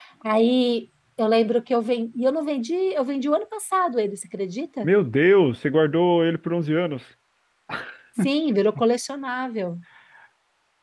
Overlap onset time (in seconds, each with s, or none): none